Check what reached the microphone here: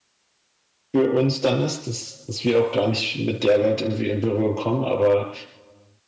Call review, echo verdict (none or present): none